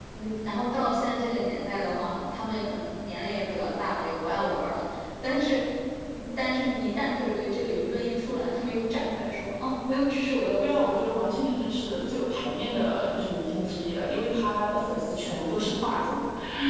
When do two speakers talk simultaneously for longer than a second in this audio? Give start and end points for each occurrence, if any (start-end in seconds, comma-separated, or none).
none